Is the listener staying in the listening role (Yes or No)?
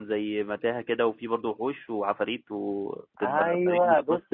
No